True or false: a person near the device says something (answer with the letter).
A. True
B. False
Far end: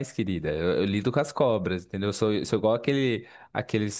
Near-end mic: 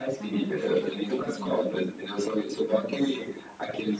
A